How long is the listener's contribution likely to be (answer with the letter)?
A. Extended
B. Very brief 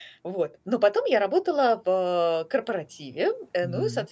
B